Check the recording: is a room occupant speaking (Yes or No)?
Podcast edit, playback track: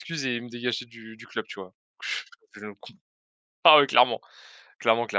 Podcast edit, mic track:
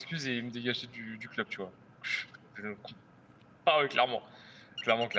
No